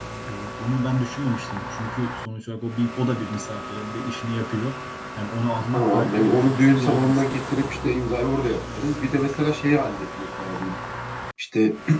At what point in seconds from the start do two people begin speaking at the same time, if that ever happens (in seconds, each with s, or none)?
5.7 s